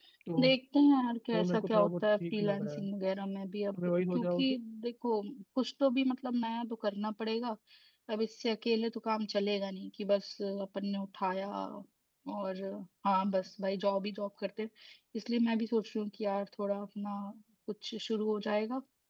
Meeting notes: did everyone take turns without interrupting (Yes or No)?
No